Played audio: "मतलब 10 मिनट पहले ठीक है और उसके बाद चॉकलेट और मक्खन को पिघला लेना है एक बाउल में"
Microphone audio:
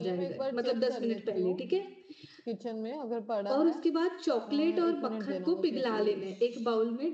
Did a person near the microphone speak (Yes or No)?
Yes